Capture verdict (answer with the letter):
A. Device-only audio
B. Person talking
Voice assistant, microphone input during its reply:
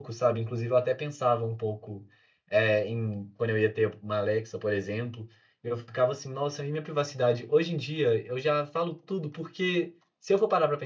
B